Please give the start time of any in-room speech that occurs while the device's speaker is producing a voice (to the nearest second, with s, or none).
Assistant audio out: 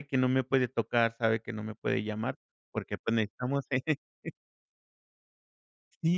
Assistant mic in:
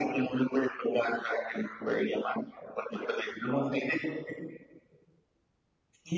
none